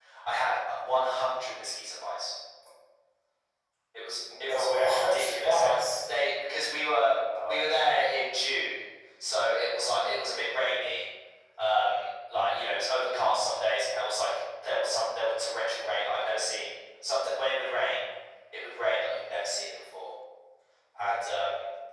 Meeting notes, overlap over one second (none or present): present